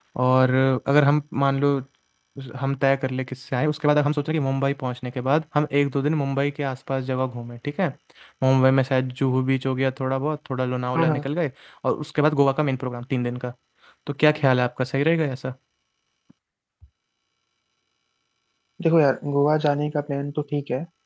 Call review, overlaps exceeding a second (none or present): none